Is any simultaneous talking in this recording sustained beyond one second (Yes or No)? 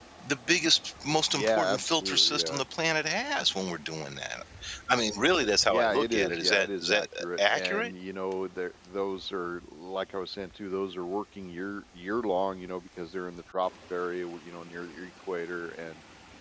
Yes